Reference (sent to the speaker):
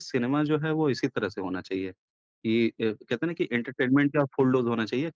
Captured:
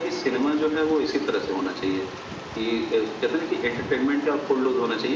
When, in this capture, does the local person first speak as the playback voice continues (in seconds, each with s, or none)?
none